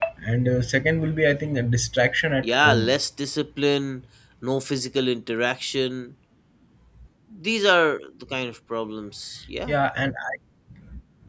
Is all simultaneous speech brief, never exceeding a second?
Yes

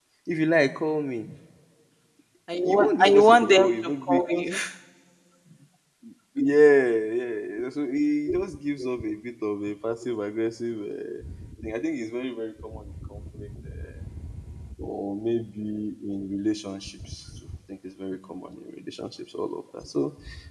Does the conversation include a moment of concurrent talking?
Yes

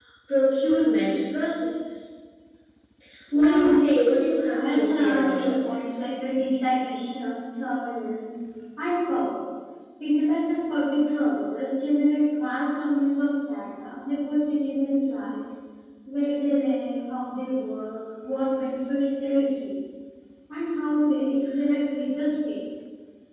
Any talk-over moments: Yes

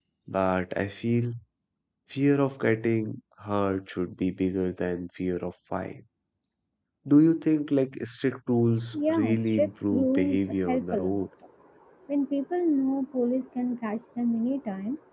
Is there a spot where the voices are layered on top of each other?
Yes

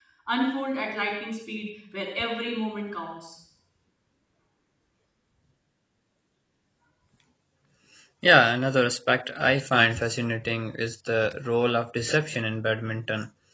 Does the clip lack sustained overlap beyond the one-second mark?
Yes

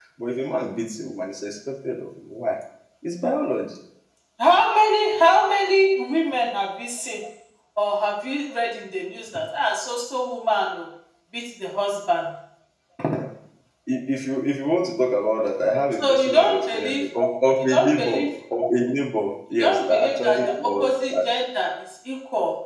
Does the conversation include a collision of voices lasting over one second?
Yes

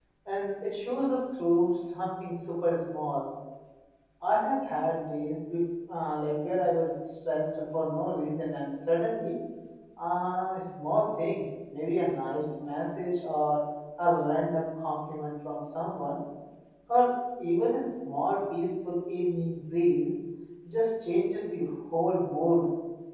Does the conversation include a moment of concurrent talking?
No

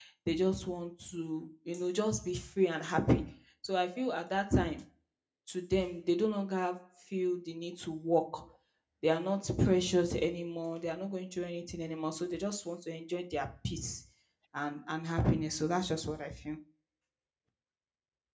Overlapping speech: No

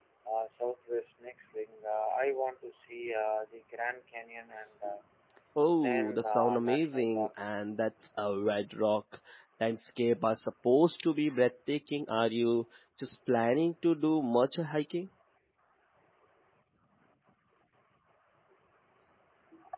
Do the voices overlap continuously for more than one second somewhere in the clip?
Yes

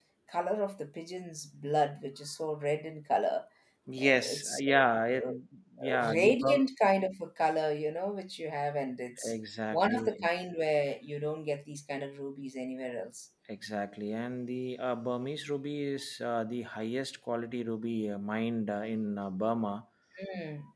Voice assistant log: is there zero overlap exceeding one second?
No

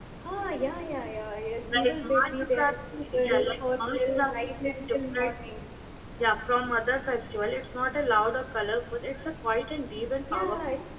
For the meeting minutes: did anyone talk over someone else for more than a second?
Yes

